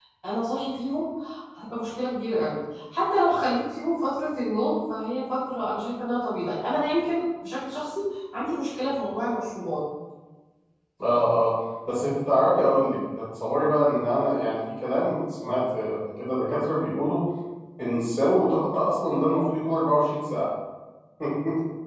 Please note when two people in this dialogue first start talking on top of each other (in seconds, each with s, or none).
none